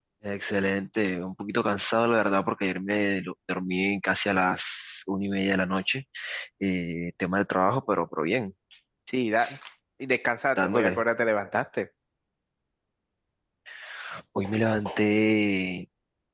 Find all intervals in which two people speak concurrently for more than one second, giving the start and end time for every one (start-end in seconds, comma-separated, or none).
none